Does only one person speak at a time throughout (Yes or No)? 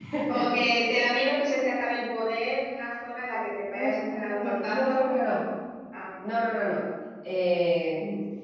No